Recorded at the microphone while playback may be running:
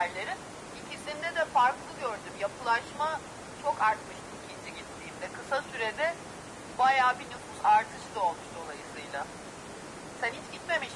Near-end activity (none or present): none